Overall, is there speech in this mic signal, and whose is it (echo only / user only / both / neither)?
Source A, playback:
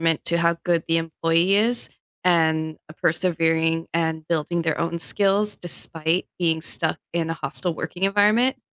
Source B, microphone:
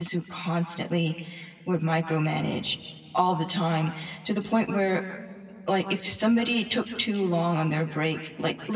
user only